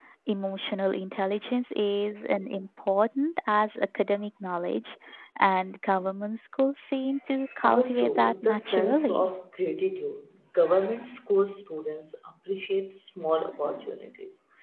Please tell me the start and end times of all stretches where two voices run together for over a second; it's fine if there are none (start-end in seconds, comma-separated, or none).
7.6-9.3